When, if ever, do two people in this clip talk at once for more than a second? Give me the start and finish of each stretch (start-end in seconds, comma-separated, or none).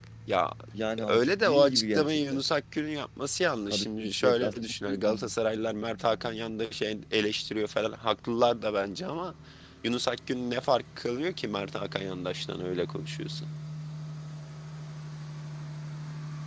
1.1-2.4, 3.7-5.3